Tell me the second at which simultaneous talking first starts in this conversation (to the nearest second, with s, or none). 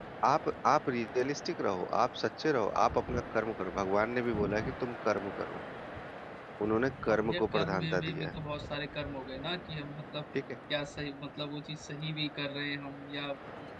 7 s